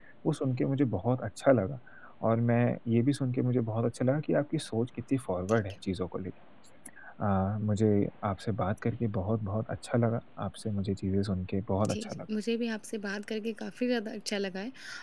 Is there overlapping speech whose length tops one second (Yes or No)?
No